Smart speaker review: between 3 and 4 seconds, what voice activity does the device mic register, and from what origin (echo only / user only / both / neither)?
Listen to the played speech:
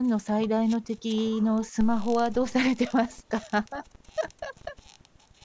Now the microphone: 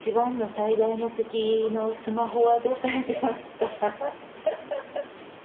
echo only